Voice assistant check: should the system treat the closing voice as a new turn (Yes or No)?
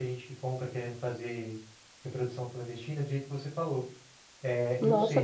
Yes